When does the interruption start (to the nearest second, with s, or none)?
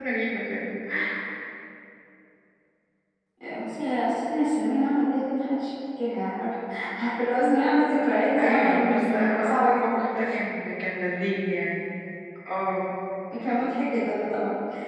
8 s